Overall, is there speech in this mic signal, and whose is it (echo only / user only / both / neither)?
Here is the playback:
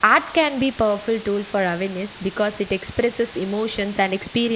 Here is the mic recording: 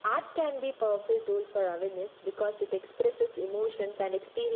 echo only